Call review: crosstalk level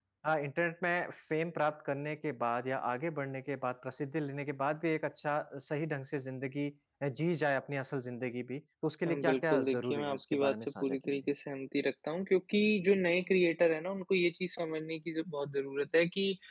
present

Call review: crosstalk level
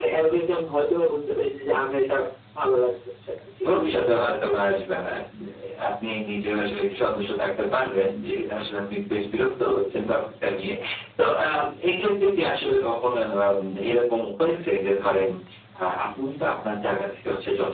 none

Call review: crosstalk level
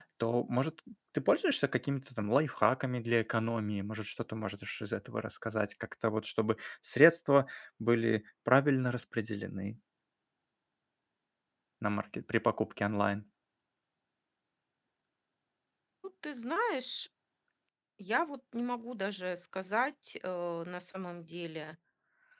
none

